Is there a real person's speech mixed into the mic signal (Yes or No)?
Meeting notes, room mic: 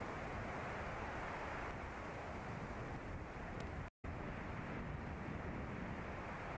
No